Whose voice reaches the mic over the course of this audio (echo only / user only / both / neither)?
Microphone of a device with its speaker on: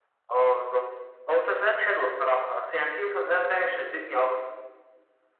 echo only